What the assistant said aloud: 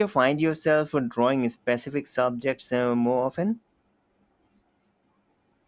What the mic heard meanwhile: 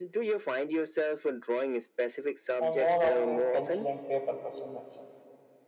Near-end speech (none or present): present